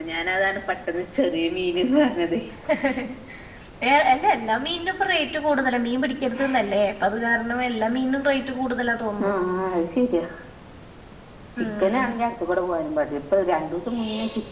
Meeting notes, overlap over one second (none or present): none